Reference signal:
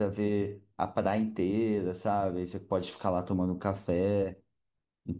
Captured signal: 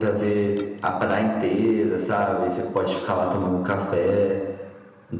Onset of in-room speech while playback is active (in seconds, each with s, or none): none